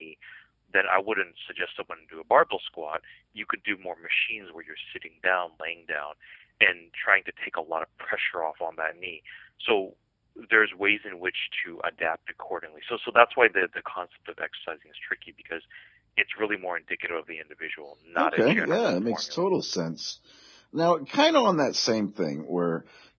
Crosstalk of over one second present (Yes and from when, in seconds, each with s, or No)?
Yes, from 18.2 s